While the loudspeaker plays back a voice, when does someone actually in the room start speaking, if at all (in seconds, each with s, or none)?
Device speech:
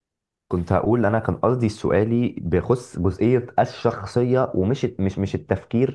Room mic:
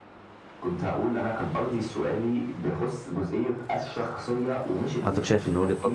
5.0 s